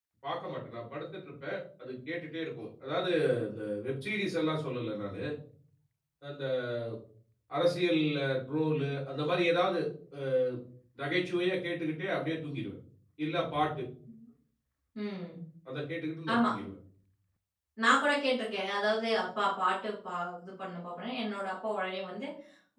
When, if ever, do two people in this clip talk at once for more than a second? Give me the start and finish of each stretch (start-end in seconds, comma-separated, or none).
none